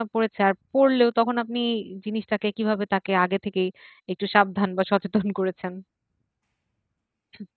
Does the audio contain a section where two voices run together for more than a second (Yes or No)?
No